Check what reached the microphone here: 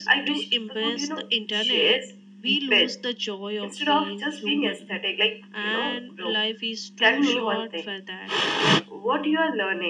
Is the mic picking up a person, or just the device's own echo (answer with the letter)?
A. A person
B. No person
B